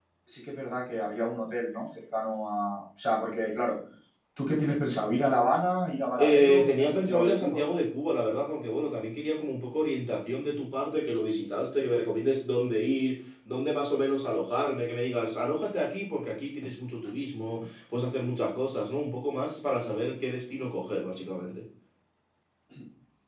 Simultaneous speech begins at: 6.2 s

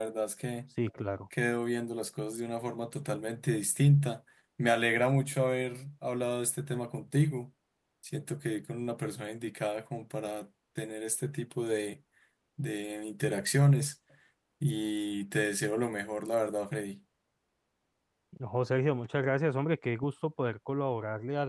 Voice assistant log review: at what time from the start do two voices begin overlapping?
none

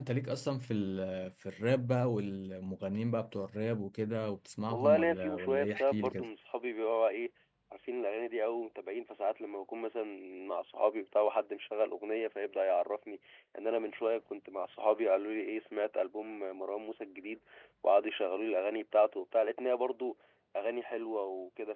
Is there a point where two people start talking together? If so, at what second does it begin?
4.7 s

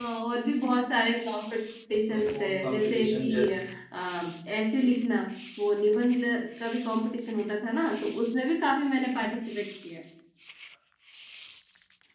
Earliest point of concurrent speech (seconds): 2.1 s

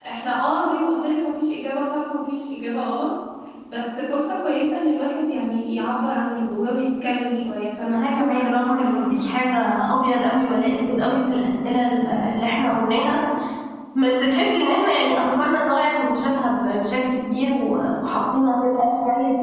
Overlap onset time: 7.9 s

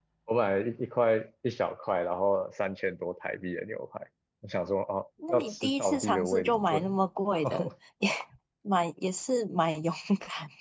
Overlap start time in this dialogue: 5.2 s

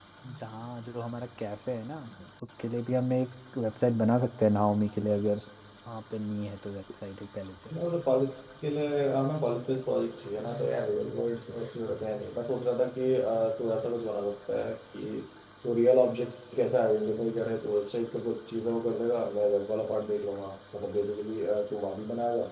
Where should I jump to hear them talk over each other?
none

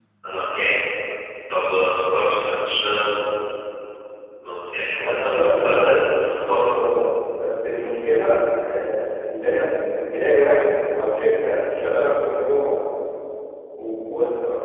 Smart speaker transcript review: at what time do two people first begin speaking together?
5.0 s

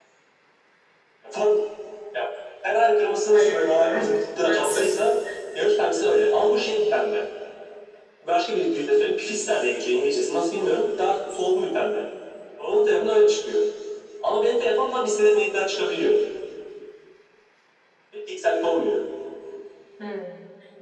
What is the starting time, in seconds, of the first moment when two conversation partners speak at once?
3.3 s

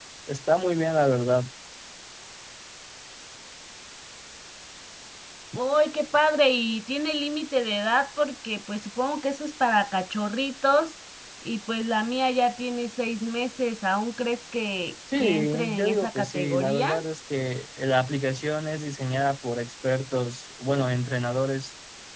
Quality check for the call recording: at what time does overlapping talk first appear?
15.1 s

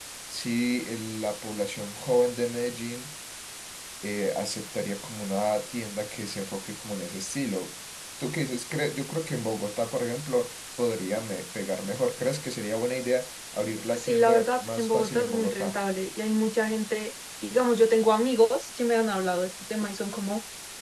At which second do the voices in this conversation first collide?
13.9 s

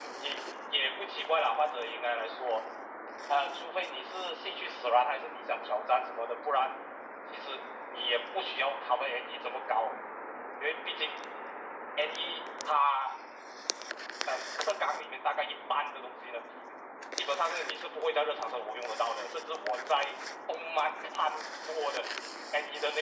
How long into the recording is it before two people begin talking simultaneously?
none

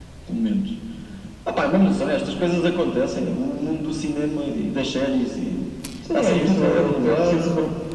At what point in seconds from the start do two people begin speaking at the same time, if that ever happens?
6.1 s

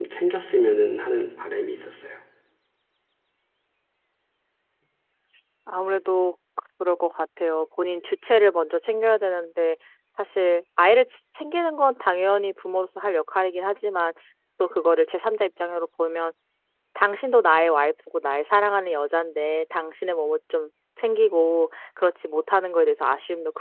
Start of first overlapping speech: none

